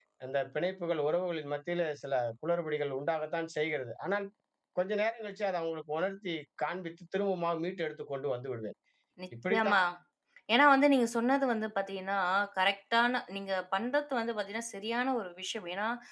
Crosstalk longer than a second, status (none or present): none